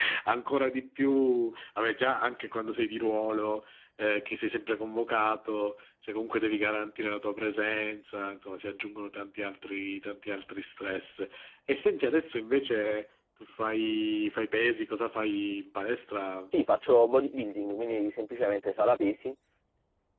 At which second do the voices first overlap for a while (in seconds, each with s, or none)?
none